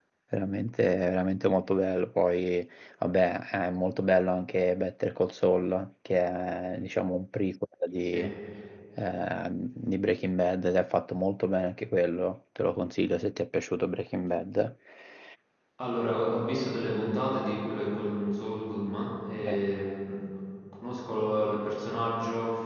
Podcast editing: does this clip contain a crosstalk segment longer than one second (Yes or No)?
No